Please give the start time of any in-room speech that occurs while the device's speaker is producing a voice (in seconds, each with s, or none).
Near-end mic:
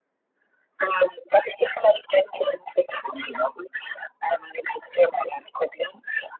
3.1 s